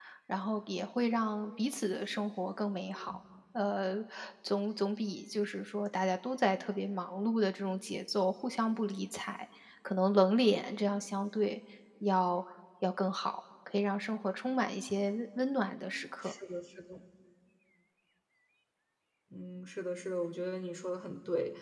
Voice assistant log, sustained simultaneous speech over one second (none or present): none